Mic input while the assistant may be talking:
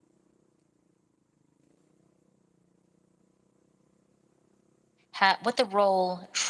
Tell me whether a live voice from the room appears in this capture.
Yes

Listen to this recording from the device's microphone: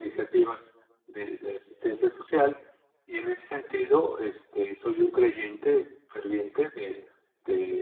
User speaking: No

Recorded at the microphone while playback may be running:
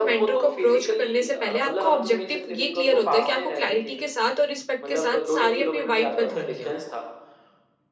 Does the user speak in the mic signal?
Yes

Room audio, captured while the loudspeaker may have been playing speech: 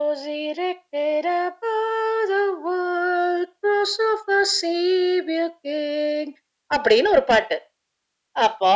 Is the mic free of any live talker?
Yes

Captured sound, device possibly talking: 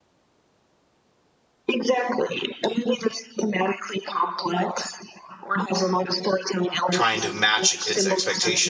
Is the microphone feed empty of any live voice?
No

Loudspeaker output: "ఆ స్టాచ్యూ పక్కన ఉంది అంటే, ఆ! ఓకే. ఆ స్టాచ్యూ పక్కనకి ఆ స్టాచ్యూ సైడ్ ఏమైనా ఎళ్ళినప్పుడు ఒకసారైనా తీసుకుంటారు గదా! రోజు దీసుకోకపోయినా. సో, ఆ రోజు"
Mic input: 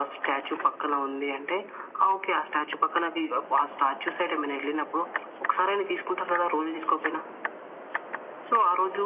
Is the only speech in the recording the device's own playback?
Yes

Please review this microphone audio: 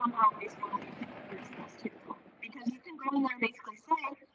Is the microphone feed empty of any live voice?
Yes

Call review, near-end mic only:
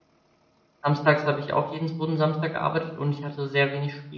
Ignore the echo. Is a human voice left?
Yes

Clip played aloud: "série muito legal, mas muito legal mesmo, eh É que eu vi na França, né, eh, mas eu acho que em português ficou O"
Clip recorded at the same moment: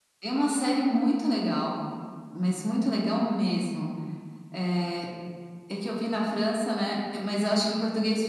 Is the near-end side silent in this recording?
Yes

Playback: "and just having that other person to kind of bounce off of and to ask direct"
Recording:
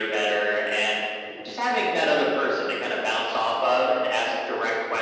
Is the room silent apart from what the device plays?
Yes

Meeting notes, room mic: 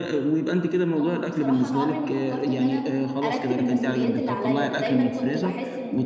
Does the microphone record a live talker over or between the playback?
Yes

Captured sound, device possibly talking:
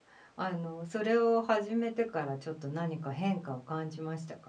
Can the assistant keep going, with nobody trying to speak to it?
No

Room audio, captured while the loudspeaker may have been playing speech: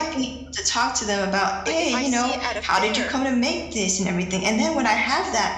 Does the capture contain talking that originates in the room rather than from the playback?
Yes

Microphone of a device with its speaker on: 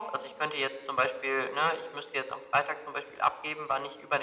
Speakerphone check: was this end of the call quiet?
Yes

